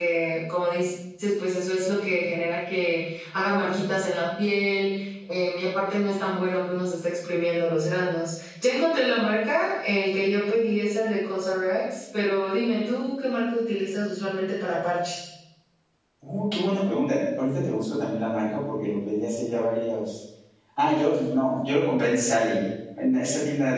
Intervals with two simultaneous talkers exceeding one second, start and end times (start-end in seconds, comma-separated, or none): none